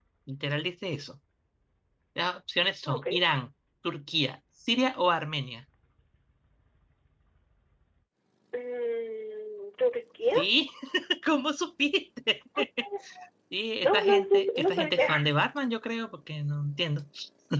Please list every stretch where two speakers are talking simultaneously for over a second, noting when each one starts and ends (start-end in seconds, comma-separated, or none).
13.8-15.2